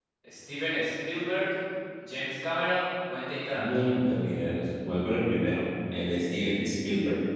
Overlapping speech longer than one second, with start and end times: none

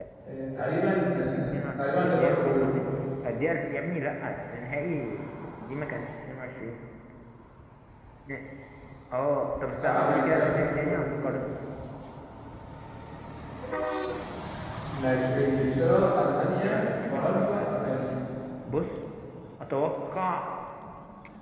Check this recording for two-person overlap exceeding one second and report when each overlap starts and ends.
1.2-2.8, 9.8-11.4, 16.3-18.1

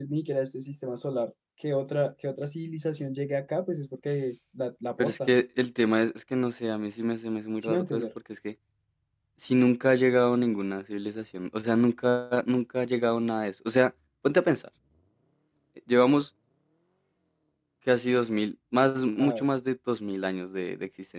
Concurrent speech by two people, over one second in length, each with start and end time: none

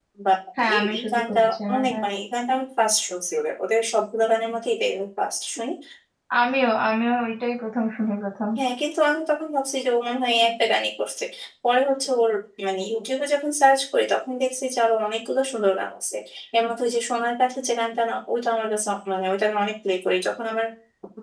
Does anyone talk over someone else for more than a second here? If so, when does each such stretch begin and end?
0.7-2.1

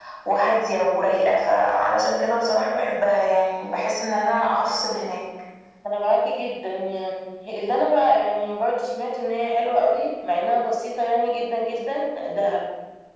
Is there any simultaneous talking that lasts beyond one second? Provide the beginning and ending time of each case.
none

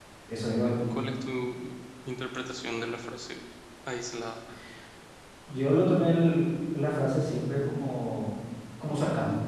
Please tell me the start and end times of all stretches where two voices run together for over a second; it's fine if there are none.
none

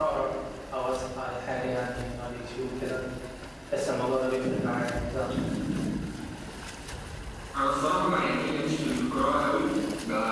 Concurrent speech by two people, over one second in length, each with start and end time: none

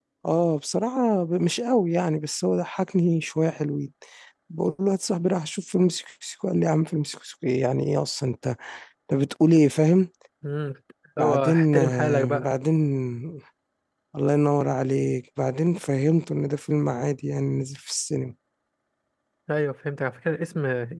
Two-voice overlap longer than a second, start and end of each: 11.2-12.4

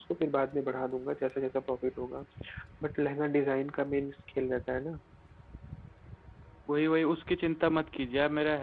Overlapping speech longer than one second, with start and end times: none

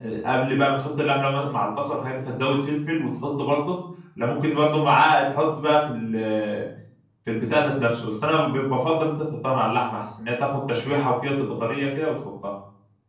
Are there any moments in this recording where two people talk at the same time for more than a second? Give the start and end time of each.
none

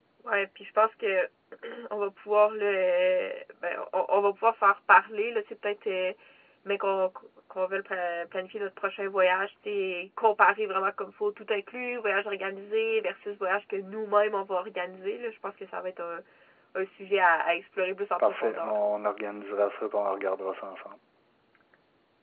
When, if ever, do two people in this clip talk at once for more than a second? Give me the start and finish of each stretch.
none

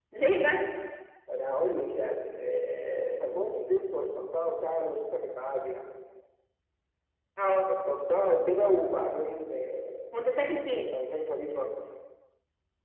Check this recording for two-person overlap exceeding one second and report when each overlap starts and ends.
none

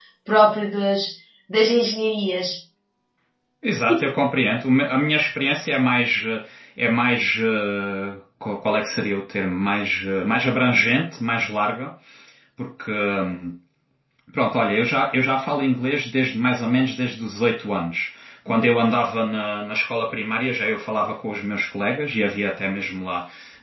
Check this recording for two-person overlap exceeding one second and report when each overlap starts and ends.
none

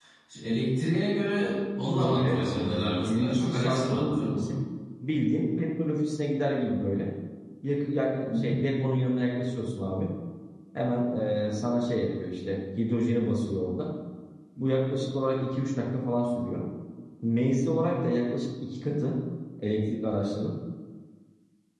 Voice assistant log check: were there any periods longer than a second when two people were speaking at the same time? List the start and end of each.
2.0-4.6

